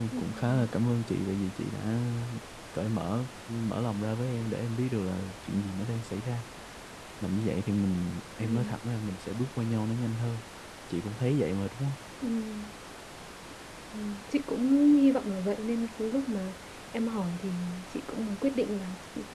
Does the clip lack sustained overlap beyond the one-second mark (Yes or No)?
Yes